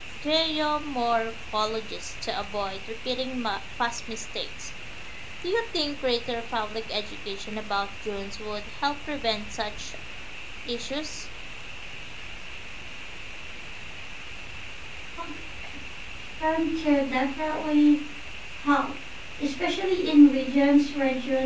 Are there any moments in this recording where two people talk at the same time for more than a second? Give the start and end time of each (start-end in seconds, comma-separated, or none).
none